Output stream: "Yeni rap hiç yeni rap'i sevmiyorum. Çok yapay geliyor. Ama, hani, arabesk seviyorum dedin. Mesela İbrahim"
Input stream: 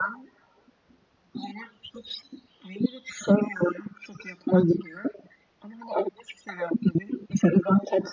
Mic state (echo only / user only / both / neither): echo only